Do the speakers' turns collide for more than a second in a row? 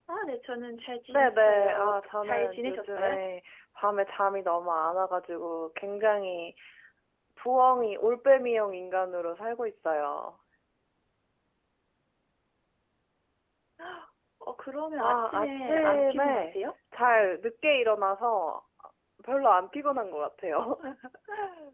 Yes, from 1.1 s

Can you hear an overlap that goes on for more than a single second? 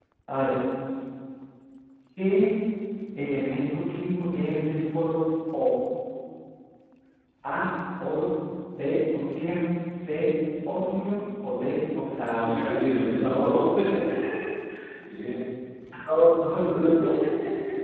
No

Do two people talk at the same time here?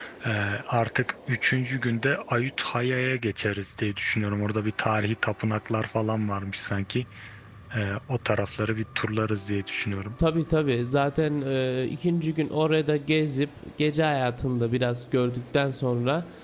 No

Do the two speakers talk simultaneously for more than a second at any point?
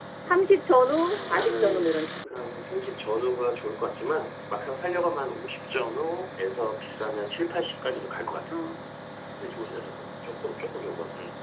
Yes, from 0.7 s

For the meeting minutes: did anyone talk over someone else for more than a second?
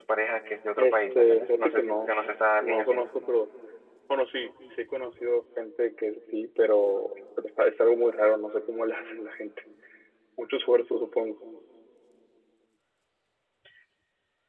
Yes, from 0.8 s

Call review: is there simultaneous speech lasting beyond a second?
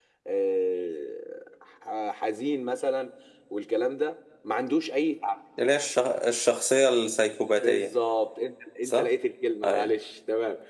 No

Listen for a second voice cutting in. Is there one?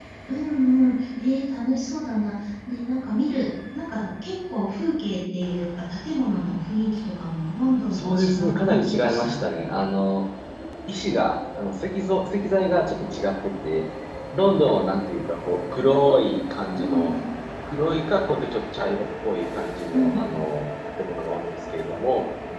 Yes, from 7.9 s

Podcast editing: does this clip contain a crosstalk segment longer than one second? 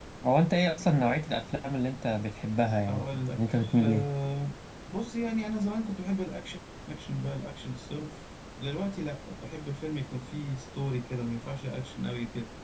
Yes, from 2.8 s

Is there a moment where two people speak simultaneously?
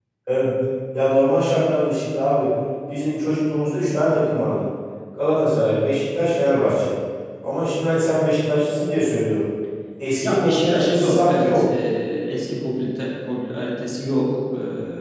Yes, from 10.2 s

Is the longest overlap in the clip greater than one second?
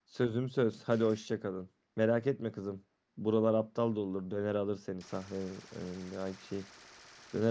No

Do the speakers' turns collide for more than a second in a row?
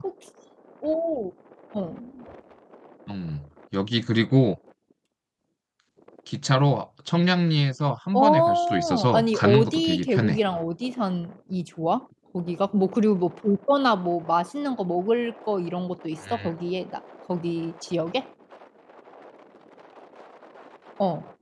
Yes, from 8.1 s

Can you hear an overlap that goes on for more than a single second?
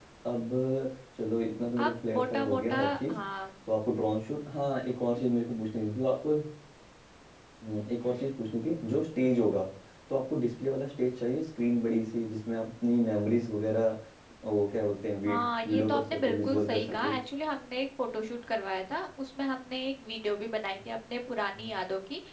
Yes, from 1.8 s

